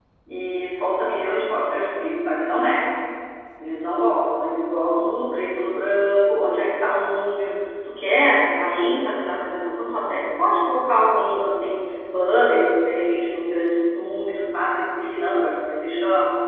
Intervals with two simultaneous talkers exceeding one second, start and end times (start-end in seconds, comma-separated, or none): none